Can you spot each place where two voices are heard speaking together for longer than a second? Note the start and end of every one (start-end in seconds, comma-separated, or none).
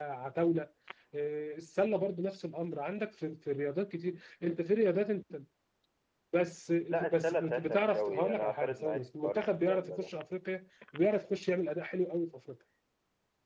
7.1-10.1